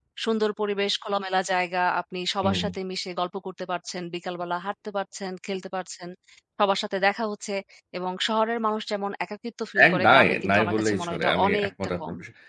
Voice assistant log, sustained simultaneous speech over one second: present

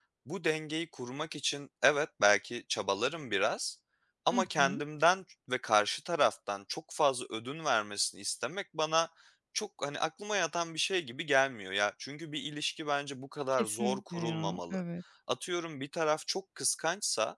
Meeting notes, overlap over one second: present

